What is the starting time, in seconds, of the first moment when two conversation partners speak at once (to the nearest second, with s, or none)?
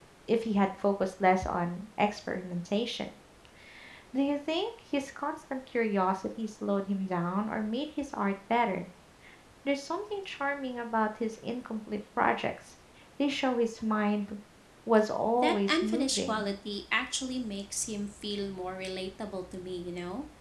15 s